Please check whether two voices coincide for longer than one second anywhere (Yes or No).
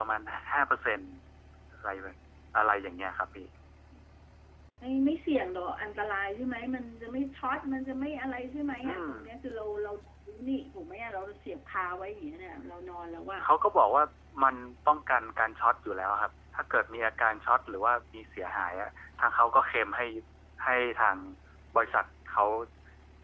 No